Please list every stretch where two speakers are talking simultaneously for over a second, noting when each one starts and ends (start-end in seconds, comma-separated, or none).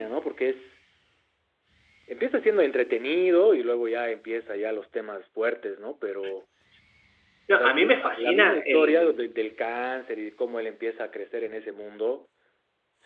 7.5-9.2